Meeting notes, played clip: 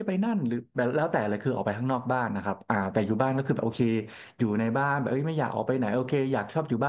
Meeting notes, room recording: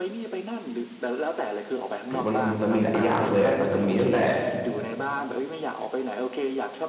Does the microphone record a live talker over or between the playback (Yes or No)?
Yes